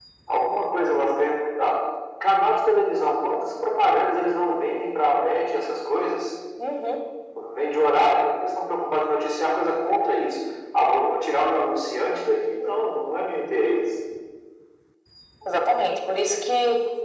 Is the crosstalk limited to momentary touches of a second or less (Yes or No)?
Yes